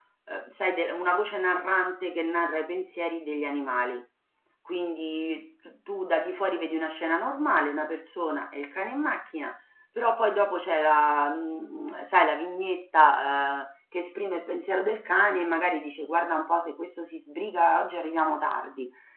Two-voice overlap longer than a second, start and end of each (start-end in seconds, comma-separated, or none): none